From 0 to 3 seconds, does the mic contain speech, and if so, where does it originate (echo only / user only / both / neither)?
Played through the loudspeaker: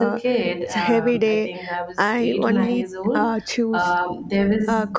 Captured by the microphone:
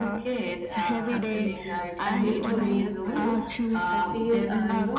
both